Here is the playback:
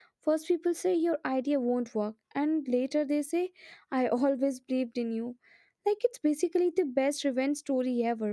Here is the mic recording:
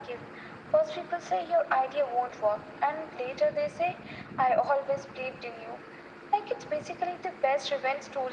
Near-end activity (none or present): none